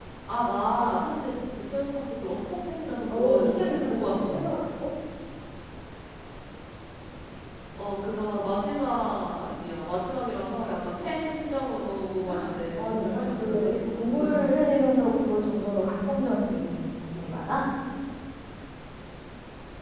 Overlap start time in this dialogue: 3.1 s

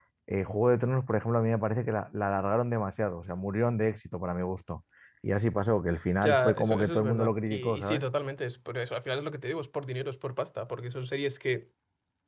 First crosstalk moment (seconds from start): 6.2 s

